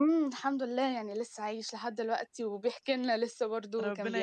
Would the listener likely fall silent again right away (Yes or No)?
No